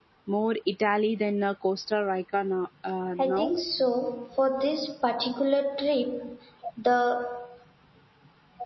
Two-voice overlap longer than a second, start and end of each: none

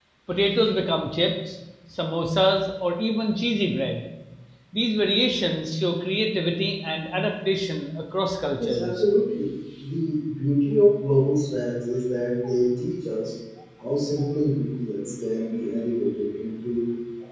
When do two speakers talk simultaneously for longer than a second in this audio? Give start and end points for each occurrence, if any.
none

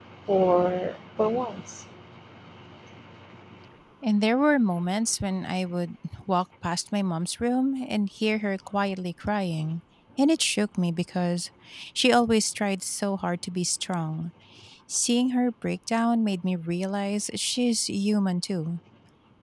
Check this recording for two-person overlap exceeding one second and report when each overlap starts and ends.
none

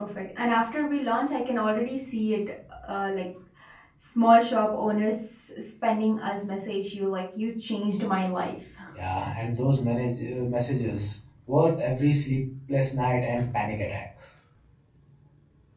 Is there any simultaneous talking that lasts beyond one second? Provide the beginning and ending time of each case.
none

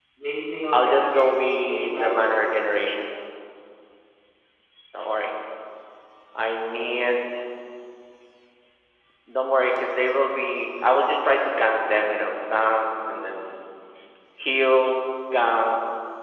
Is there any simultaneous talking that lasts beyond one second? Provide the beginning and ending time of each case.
0.7-2.7

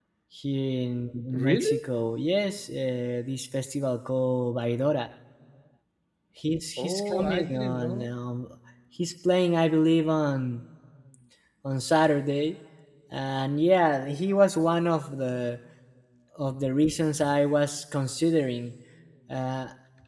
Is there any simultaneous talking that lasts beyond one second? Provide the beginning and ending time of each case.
6.8-8.1

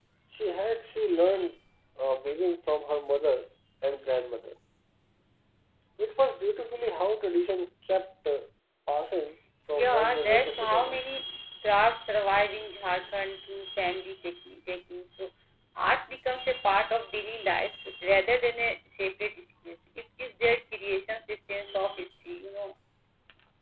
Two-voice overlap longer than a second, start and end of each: 9.7-11.1

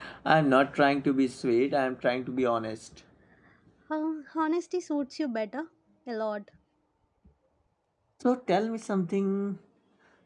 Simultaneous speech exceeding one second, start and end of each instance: none

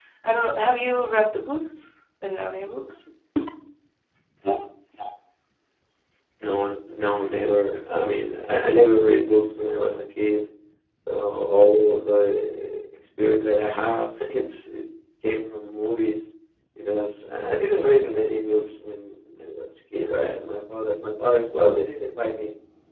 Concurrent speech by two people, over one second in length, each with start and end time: none

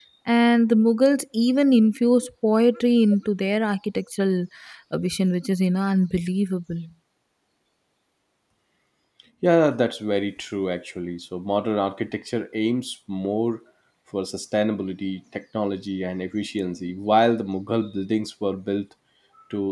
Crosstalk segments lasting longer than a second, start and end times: none

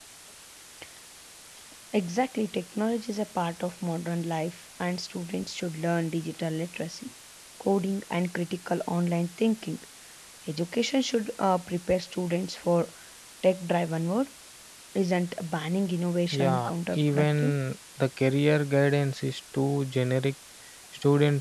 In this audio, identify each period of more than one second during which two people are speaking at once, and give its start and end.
16.3-17.5

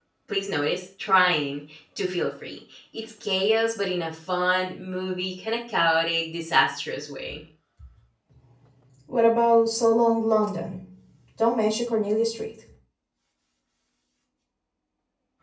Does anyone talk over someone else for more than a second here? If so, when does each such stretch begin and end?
none

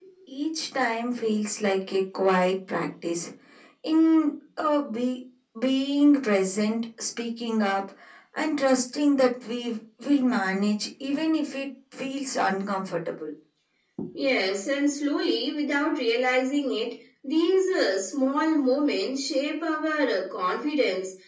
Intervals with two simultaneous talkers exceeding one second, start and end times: none

